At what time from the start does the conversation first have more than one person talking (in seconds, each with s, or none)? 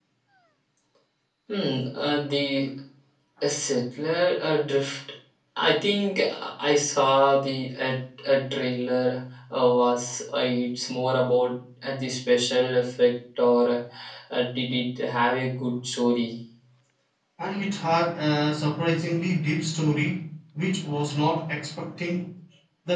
none